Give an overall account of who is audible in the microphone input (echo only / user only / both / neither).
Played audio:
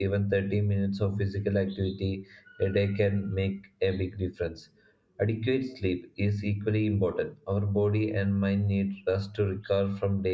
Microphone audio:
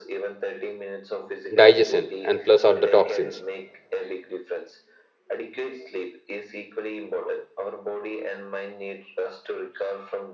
both